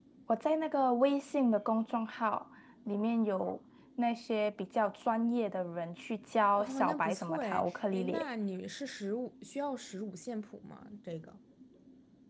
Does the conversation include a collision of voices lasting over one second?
Yes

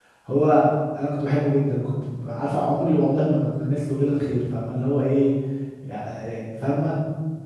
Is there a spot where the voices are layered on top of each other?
No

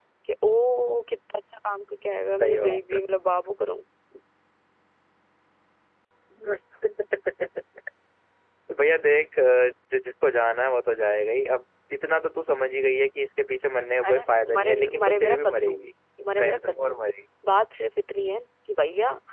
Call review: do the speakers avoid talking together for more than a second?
No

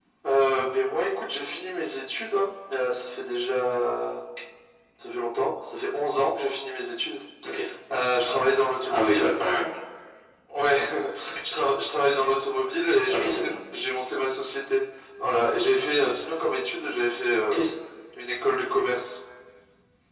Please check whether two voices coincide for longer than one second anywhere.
No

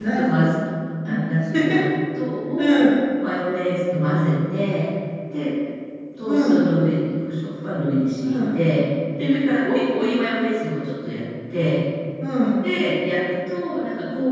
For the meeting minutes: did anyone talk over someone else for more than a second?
No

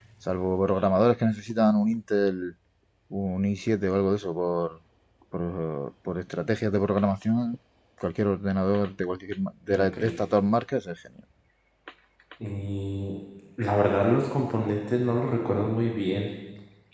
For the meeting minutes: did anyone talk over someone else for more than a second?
No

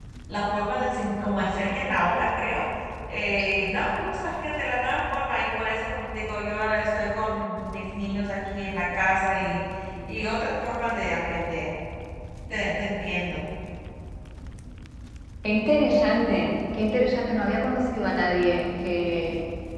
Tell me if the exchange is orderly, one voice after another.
Yes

